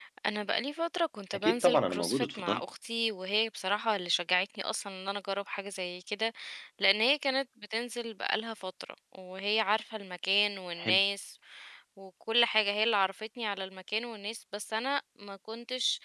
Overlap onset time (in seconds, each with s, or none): 1.3 s